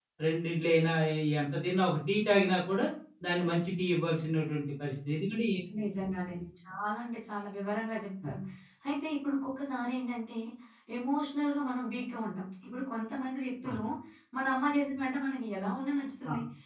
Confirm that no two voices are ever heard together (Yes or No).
Yes